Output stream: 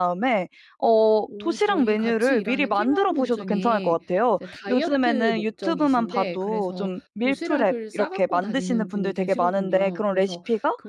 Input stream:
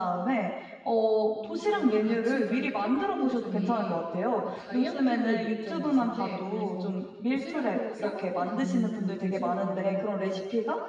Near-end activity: none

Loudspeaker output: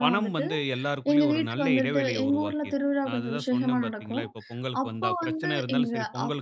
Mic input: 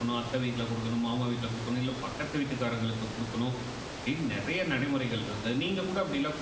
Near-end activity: present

